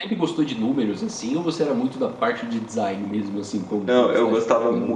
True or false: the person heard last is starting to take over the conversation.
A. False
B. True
B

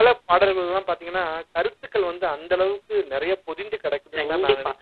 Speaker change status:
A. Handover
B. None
A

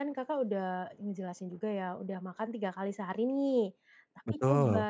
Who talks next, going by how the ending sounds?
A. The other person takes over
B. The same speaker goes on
B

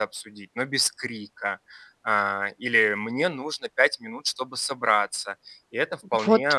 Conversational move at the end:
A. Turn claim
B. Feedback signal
B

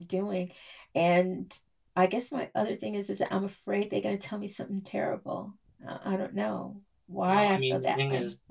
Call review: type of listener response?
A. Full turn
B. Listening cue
A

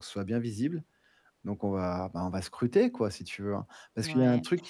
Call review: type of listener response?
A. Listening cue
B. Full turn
B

